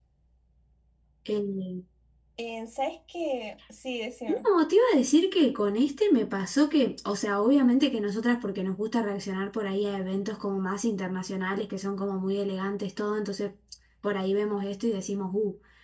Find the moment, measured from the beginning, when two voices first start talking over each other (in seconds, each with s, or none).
none